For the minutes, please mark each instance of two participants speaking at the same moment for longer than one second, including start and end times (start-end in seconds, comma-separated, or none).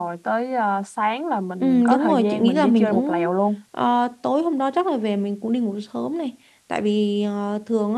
1.6-3.3